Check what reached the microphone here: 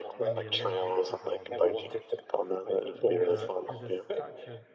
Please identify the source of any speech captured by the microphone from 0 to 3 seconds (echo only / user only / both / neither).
both